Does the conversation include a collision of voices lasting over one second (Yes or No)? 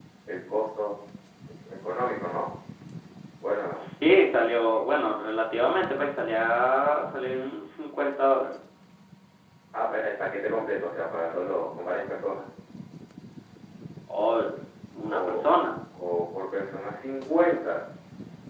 Yes